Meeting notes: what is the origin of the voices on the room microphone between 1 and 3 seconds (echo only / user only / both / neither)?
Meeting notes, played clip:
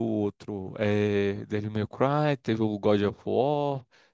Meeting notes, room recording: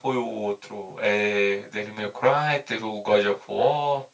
echo only